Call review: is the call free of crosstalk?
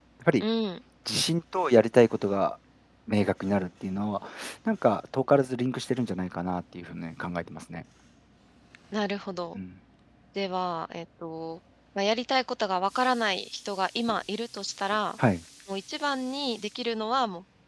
Yes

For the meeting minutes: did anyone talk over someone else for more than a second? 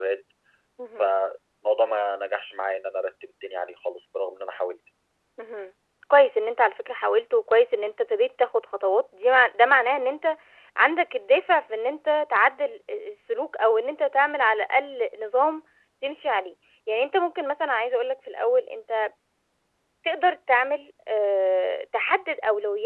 No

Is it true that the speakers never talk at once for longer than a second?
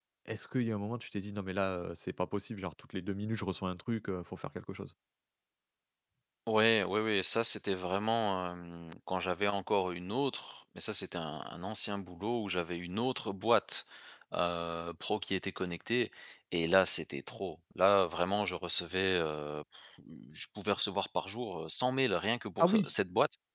Yes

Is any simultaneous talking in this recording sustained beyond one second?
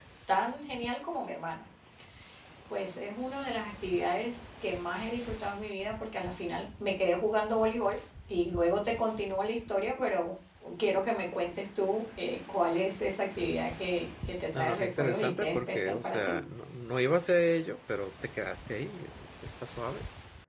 Yes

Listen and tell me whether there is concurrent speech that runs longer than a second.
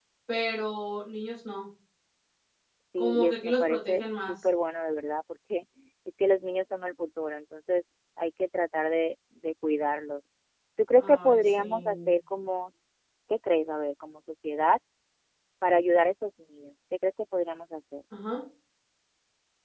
Yes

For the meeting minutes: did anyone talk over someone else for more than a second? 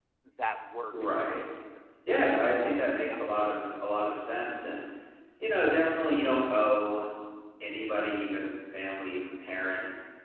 Yes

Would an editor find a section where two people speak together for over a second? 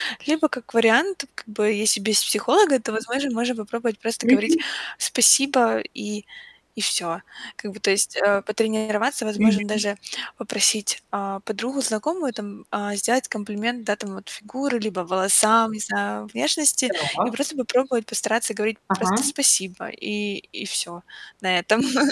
No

